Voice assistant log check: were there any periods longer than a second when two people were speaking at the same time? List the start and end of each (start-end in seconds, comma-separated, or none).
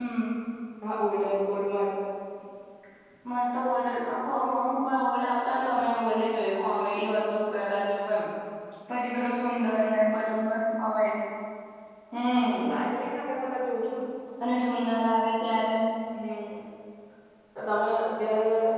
none